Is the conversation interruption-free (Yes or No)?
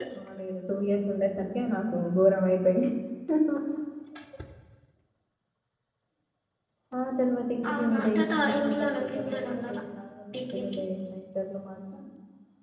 No